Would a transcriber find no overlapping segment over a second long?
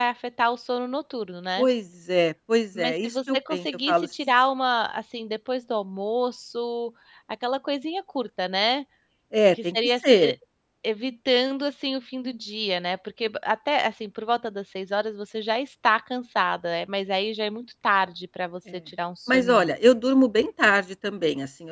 No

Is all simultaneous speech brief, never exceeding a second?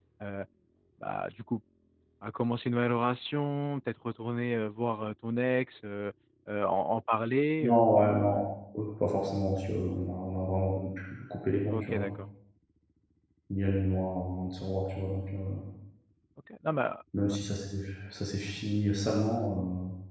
Yes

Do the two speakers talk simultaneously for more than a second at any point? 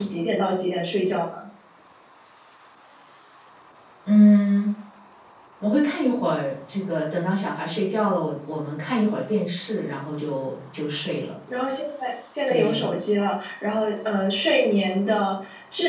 No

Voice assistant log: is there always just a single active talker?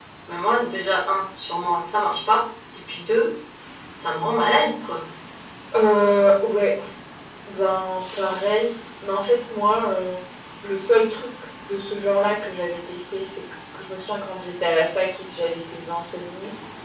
Yes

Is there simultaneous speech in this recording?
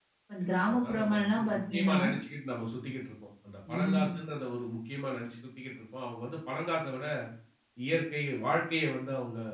Yes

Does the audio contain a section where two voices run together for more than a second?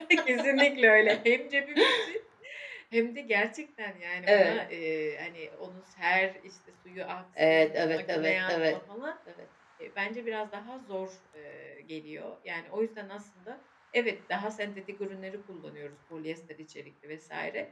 Yes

